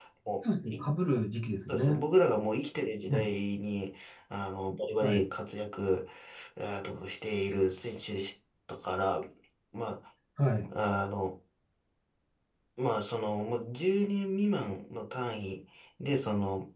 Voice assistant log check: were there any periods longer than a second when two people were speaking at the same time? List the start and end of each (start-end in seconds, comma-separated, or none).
none